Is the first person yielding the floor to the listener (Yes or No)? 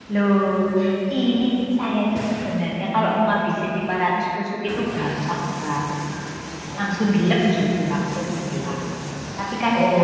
No